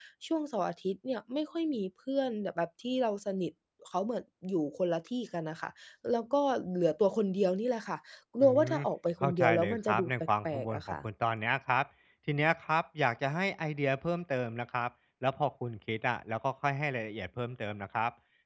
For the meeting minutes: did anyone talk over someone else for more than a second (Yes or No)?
Yes